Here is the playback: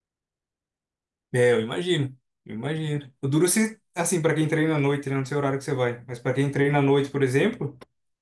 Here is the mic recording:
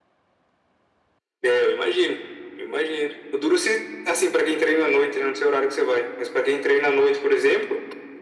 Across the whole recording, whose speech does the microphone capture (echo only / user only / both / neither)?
echo only